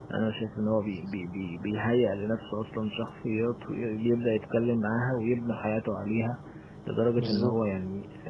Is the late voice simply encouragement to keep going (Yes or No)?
Yes